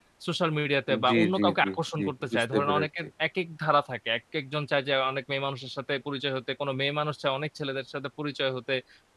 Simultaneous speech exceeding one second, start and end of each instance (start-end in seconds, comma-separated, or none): 1.1-2.9